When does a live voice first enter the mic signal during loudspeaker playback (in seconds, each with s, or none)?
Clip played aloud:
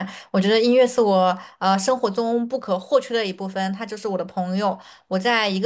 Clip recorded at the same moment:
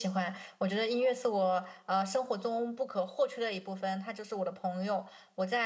none